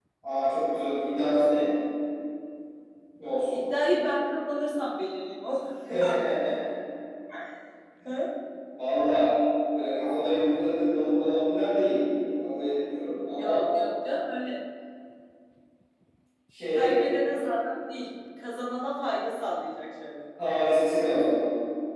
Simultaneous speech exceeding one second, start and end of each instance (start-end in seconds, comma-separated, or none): none